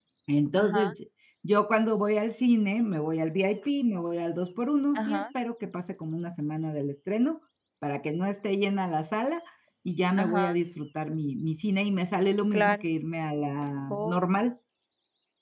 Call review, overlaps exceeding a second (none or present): none